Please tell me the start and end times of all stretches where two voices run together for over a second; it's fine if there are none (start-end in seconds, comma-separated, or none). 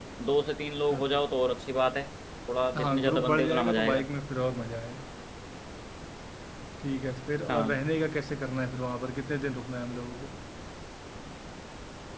2.8-4.0